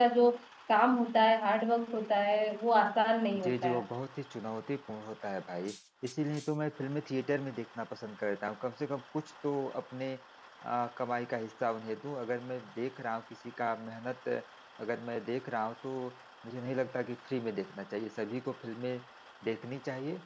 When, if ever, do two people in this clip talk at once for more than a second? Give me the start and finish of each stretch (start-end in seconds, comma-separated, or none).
none